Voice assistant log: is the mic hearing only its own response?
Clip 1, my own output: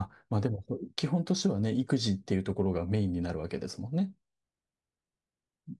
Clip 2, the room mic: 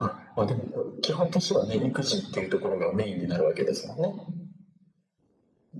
Yes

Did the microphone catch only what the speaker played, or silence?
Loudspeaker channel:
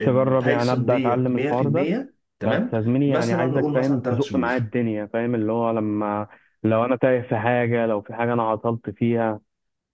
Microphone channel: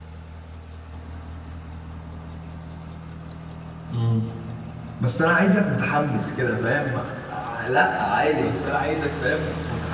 No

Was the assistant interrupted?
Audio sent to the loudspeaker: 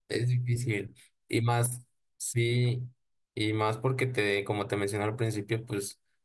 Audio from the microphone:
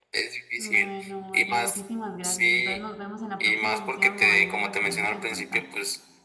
Yes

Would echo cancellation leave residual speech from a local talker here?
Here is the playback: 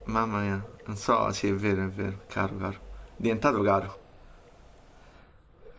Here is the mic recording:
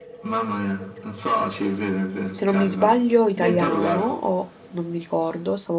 Yes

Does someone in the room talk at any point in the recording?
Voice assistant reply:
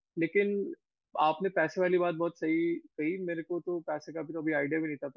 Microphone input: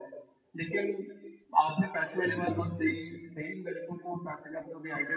Yes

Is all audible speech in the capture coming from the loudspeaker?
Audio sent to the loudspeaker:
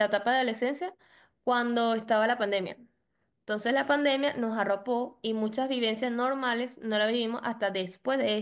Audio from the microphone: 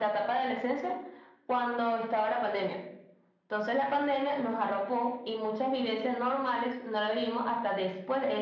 Yes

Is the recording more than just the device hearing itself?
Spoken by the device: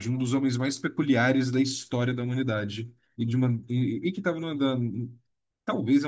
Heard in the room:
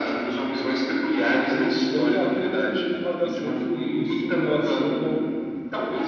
Yes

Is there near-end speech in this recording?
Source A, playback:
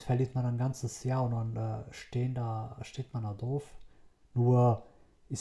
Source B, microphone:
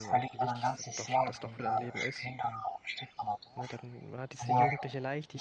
Yes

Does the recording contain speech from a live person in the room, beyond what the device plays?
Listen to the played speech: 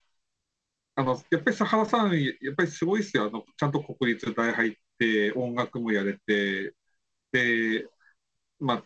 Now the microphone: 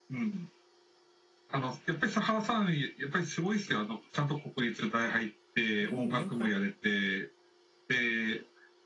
Yes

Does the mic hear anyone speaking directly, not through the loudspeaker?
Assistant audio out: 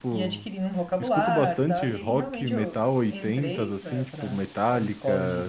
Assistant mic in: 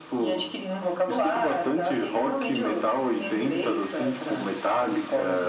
No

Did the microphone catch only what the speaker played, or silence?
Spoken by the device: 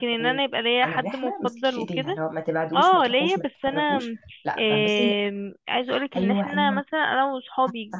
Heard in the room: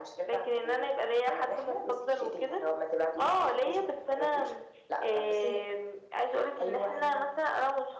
Yes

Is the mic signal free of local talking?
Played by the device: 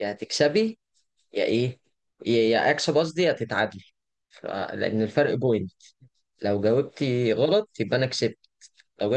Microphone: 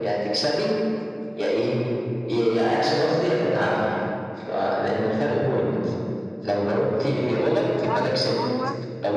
No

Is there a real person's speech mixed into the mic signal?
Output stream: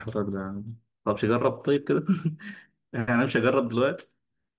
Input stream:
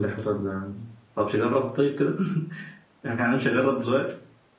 No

